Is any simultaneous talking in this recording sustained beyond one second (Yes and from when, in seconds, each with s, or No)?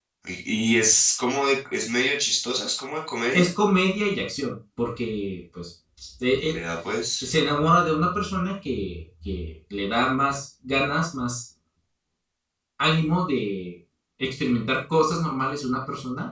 No